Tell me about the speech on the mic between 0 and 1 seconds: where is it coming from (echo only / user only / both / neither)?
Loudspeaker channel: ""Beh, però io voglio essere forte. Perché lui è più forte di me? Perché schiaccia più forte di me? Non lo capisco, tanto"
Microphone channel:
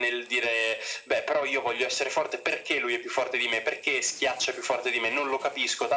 echo only